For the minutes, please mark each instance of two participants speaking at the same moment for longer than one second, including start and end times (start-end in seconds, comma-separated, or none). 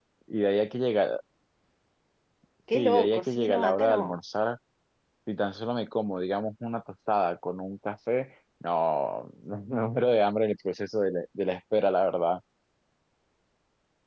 2.7-4.2